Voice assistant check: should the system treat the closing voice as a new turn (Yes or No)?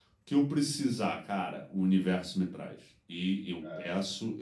No